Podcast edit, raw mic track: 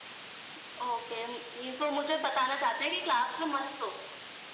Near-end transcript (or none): none